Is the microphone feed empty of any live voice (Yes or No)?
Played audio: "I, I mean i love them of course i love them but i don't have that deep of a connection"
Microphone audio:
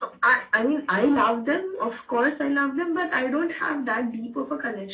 Yes